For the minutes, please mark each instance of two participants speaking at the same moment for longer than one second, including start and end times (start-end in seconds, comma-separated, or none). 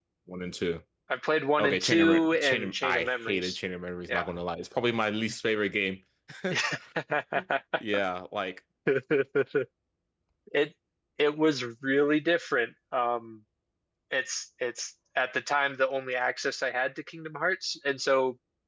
1.6-3.6